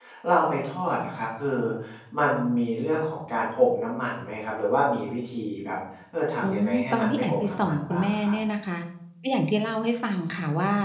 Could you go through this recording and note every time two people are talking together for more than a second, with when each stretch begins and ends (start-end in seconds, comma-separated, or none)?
6.4-8.3